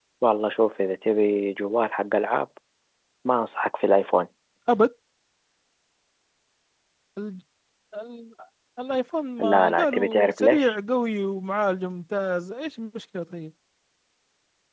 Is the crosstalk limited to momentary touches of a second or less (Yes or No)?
No